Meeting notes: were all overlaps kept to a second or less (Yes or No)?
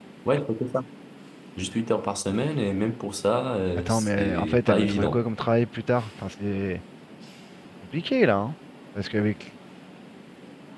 No